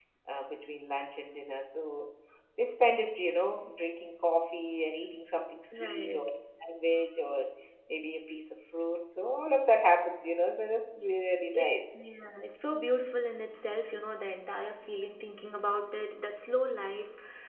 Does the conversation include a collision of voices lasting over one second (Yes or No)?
No